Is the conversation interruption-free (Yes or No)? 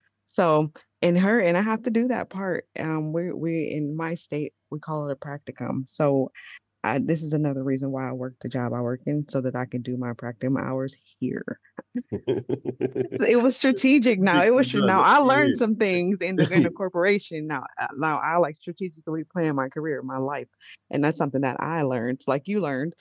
No